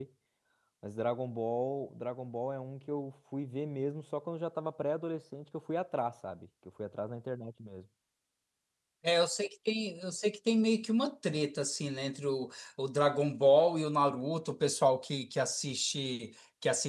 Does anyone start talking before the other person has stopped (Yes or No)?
No